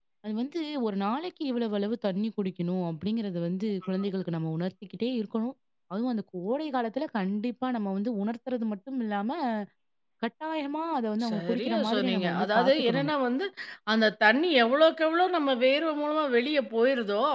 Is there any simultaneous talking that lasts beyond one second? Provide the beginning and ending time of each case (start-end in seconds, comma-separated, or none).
11.3-13.1